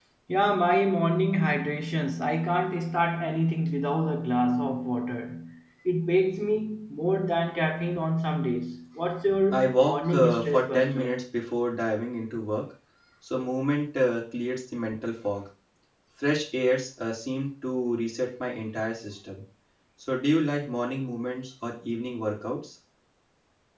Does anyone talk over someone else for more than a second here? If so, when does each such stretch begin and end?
9.5-11.2

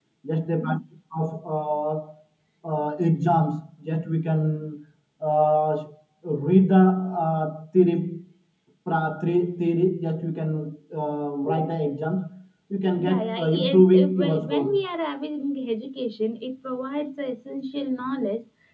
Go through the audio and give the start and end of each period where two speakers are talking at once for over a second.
13.0-14.8

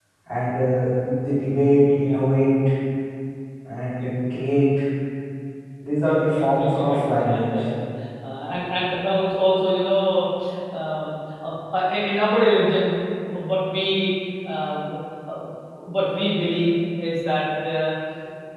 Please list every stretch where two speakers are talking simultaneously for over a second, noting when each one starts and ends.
6.0-7.5

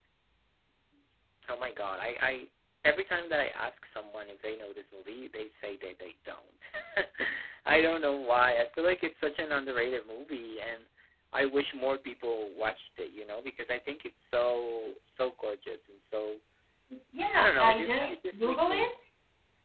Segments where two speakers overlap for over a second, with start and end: 17.3-18.9

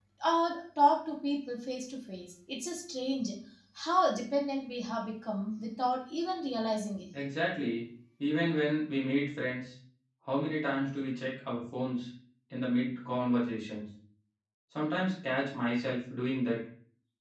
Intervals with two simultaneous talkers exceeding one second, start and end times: none

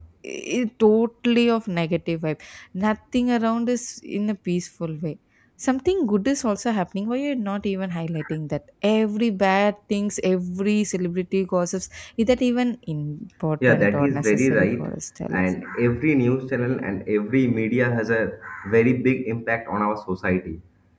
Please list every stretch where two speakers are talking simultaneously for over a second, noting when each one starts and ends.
13.7-14.9

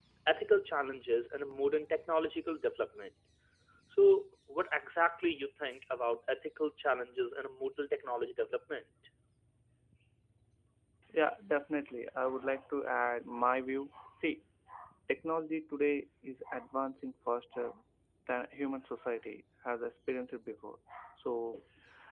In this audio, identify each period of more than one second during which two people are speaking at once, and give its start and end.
none

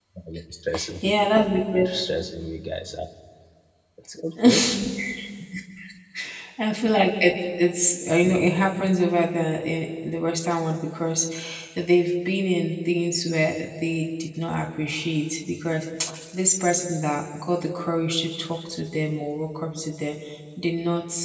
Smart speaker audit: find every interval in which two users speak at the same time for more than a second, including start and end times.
none

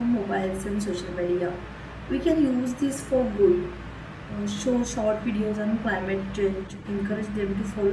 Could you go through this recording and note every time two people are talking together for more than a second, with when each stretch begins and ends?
none

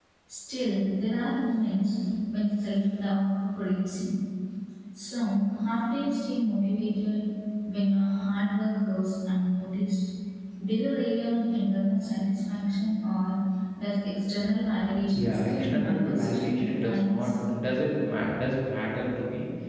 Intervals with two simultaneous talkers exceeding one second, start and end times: 15.2-17.3

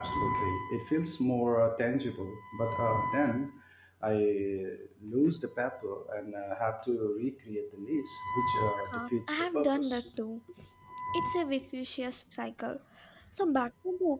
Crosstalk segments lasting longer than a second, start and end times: 8.9-10.1

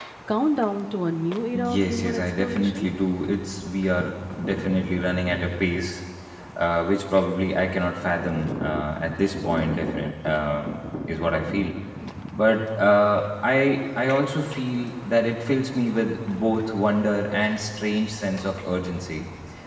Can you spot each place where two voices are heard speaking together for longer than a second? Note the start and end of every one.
1.5-2.9

